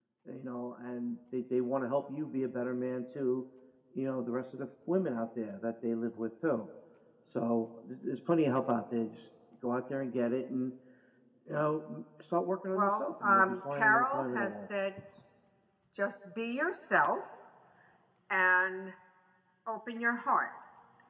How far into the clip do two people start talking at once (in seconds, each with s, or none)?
12.7 s